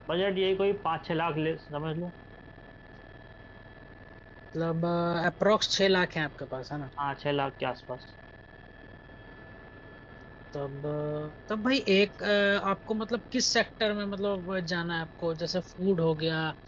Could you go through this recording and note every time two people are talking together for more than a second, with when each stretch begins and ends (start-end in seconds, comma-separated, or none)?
none